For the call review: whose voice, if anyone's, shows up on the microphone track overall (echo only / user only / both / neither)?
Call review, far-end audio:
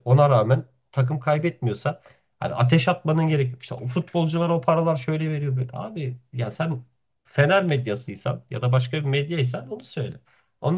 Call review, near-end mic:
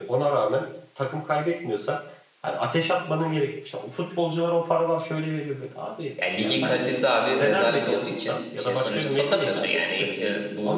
both